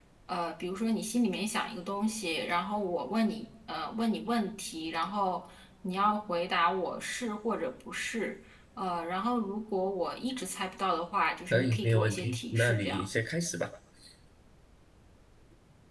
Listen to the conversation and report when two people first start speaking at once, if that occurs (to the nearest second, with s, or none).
12 s